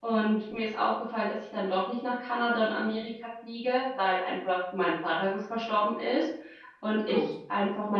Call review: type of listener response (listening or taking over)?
listening